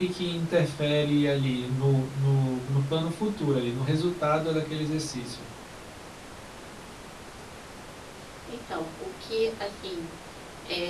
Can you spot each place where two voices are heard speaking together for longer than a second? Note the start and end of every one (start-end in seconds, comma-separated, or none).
none